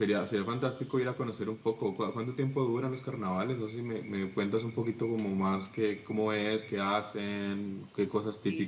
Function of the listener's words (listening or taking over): taking over